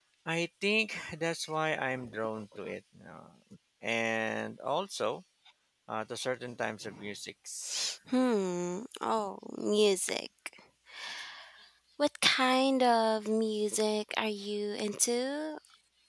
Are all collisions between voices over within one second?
Yes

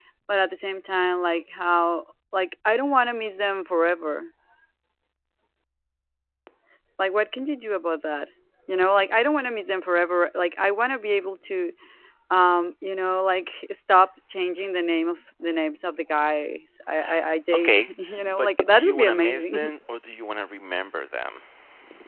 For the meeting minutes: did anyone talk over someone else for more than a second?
Yes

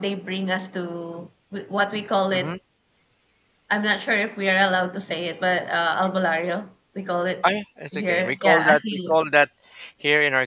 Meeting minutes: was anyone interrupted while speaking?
Yes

